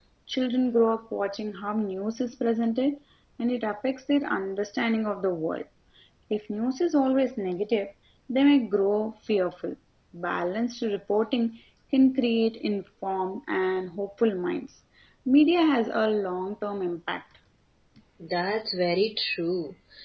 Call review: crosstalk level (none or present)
none